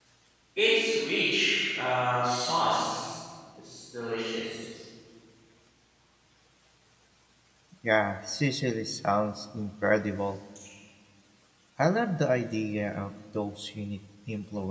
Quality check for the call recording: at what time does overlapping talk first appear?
none

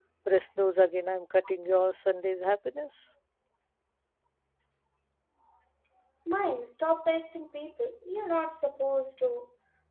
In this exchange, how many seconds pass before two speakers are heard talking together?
none

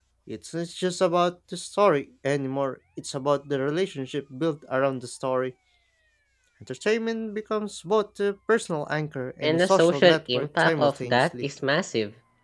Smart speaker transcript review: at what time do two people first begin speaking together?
9.4 s

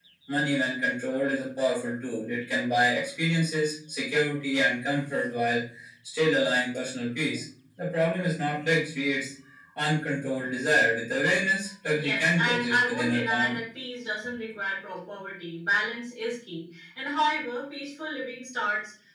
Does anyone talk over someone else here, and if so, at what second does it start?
11.9 s

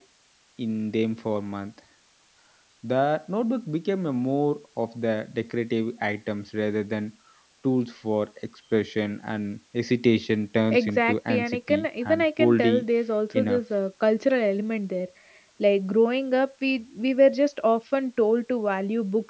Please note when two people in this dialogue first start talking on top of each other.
10.7 s

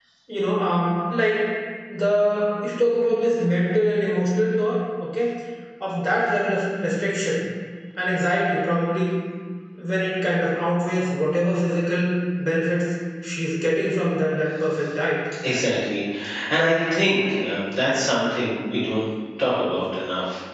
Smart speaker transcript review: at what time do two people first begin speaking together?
none

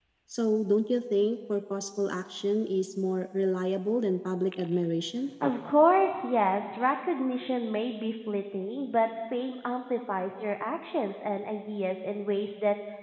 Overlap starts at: none

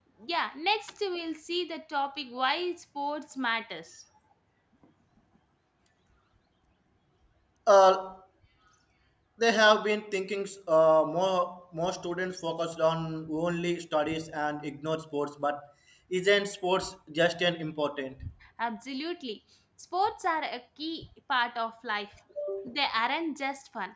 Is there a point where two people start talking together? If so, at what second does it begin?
none

